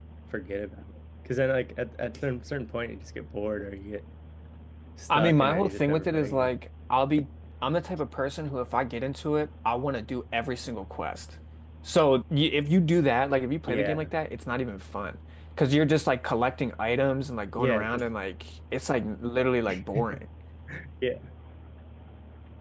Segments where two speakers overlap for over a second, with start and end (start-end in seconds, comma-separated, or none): 5.2-6.5